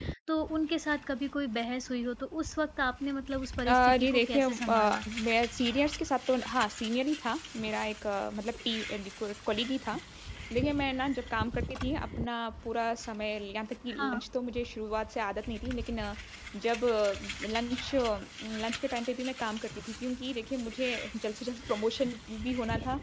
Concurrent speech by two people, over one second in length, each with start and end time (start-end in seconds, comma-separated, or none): 3.7-5.0